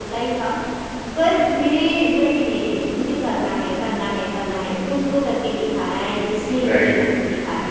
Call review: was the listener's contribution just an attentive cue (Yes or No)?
Yes